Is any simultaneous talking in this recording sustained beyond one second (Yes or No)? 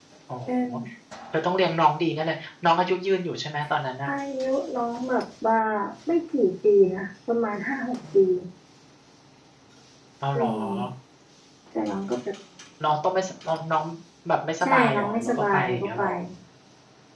Yes